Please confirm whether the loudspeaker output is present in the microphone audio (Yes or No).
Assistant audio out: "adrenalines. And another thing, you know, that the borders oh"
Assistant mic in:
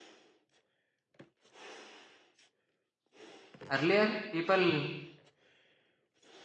No